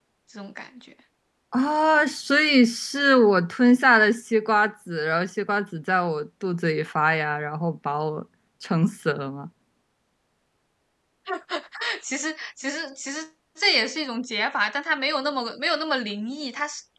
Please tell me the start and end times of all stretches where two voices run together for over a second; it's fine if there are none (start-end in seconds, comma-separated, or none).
none